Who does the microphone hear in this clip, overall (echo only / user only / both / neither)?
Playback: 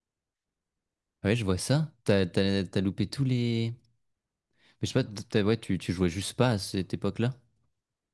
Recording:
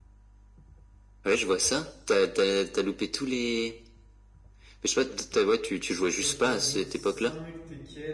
both